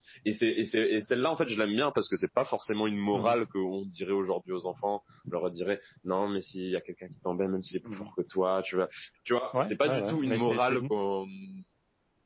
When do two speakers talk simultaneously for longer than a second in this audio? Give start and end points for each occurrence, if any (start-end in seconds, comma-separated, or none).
9.5-10.8